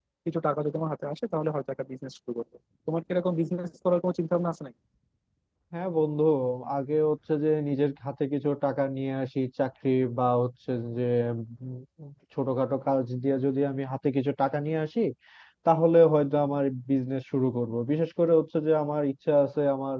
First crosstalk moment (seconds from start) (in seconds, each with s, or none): none